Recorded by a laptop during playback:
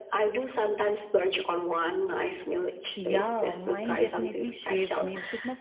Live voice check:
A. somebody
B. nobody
A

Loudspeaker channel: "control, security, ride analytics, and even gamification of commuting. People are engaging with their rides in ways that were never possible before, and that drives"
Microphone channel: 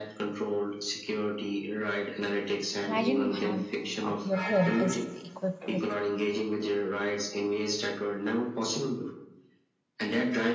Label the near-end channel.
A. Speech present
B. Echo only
A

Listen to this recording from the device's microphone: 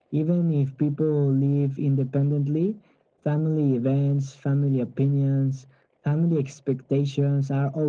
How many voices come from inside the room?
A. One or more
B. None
B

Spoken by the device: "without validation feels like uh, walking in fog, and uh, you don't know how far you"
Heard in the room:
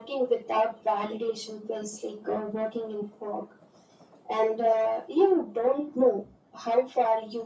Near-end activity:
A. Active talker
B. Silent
B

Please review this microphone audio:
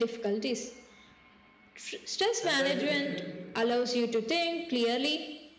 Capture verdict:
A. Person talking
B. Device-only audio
A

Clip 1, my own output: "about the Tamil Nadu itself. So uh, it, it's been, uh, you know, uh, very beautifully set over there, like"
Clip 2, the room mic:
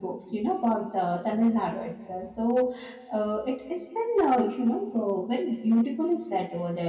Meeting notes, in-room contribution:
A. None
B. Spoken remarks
A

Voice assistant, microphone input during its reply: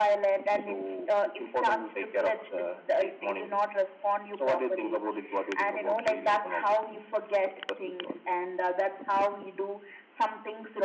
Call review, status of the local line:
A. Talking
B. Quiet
B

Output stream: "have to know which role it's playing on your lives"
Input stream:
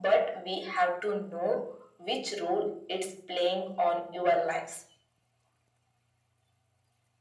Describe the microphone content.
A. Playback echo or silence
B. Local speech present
A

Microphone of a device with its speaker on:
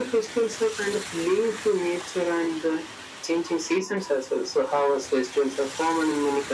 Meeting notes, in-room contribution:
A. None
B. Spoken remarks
A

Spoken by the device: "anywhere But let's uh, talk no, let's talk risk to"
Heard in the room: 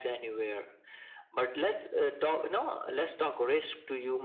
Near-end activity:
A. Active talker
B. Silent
B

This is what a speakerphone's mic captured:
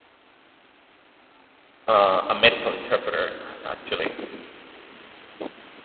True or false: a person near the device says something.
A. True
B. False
A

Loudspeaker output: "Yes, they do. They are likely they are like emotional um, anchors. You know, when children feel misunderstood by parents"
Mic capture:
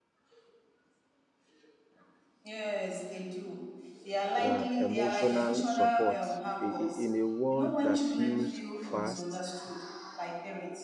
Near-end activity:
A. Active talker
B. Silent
A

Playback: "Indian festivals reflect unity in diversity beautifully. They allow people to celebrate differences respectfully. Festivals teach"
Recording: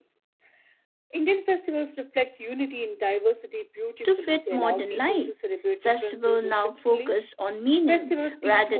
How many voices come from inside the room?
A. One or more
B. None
A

